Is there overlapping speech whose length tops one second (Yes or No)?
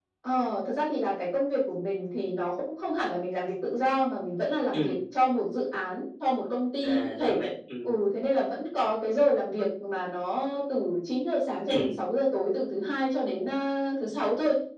No